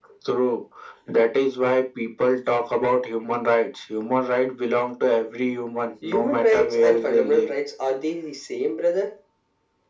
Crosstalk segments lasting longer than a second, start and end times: 6.0-7.5

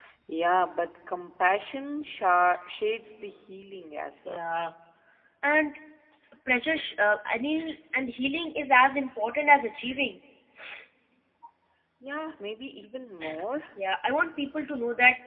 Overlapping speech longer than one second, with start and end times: none

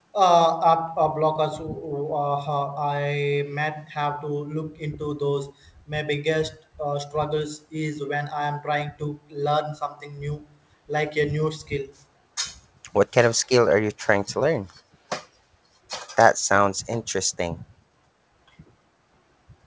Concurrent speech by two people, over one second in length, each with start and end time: none

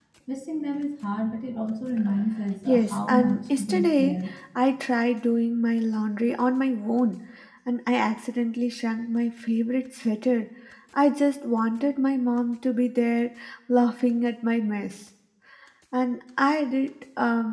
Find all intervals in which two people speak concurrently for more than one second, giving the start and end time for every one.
2.7-4.2

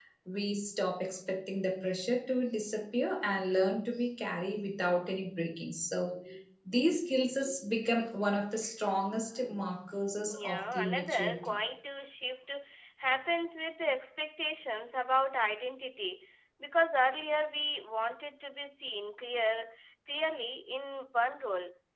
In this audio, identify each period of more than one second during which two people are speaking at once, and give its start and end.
10.2-11.6

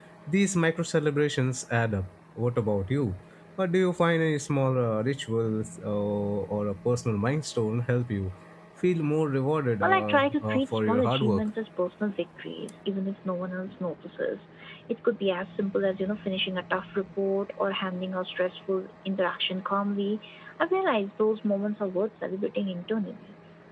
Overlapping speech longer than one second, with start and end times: 9.8-11.4

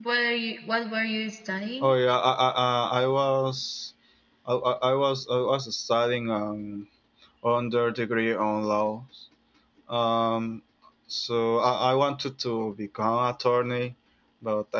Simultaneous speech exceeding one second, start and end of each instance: none

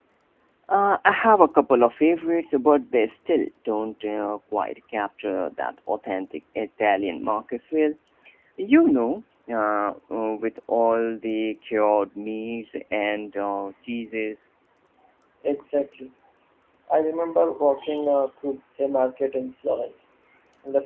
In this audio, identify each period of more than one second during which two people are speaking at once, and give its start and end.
none

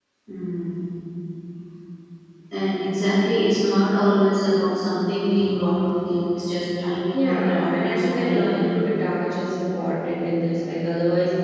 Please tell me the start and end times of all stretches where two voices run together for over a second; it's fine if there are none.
7.1-8.8

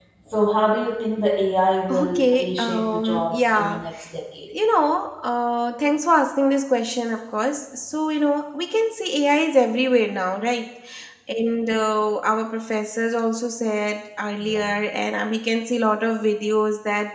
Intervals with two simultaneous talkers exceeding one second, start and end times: 1.9-3.8

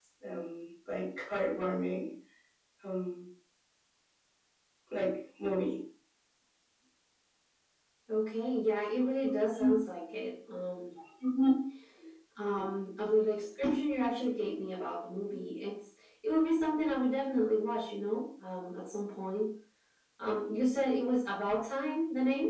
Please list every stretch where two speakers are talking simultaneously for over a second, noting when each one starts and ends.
none

